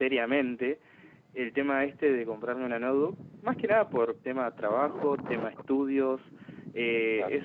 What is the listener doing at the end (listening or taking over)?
listening